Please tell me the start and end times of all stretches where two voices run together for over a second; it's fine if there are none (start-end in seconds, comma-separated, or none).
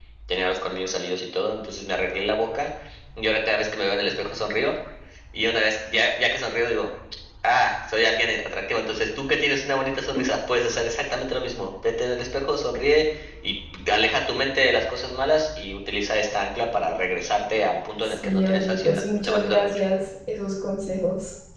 18.2-19.8